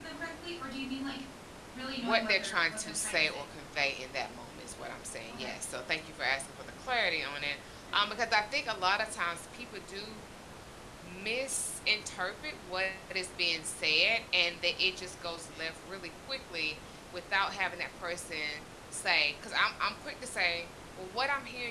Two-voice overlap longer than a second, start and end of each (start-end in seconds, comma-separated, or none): 2.0-3.5